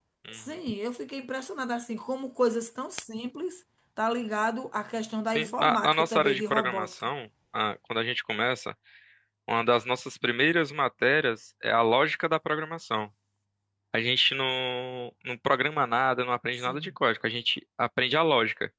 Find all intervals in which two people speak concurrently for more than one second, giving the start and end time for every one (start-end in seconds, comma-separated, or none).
5.3-7.1